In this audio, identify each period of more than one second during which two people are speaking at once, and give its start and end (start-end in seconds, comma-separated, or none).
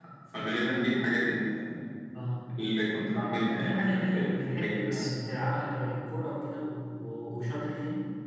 3.5-5.1